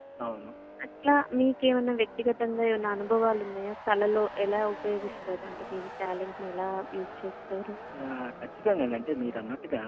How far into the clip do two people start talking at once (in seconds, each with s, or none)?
none